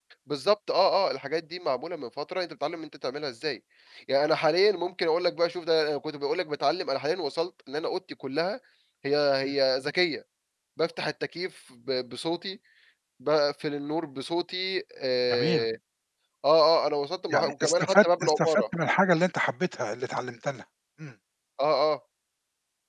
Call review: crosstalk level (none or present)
present